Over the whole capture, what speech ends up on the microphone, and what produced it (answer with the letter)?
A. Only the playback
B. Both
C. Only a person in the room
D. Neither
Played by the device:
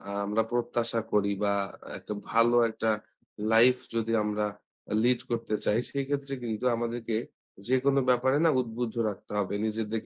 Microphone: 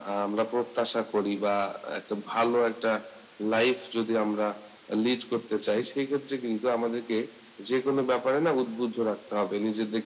A